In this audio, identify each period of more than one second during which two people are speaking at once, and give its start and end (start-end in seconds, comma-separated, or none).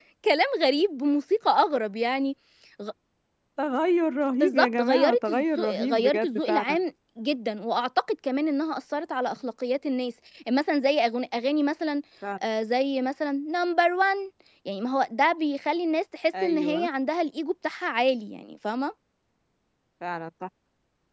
4.4-6.8